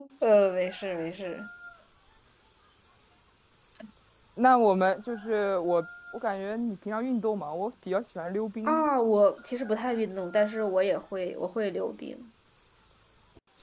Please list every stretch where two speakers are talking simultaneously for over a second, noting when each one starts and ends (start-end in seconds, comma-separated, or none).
none